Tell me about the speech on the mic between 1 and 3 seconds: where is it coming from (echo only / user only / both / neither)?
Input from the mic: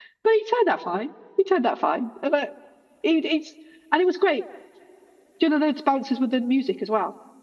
user only